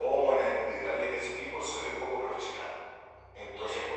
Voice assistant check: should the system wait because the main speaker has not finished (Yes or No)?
Yes